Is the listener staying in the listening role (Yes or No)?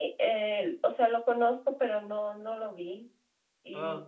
Yes